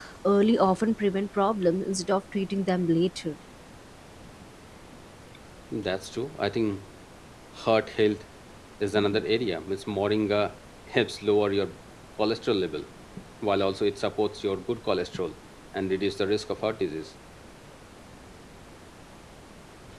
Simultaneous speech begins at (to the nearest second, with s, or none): none